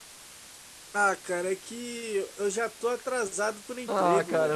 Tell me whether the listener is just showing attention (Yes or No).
No